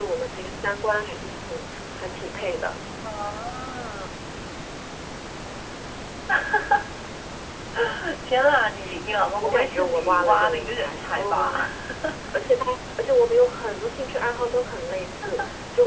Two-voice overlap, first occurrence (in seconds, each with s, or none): 9.4 s